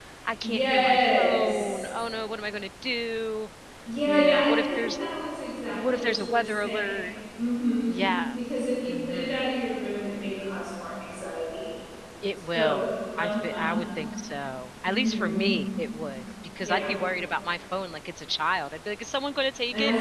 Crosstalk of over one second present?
Yes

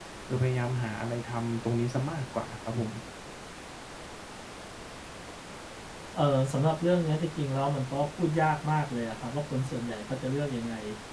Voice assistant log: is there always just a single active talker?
Yes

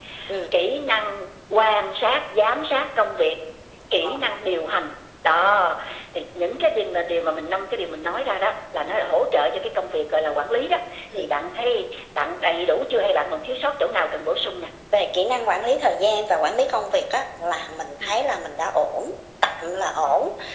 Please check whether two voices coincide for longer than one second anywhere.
No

